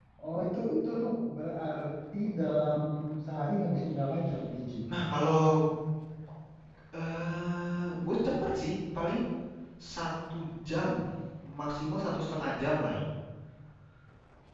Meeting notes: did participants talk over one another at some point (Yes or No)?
No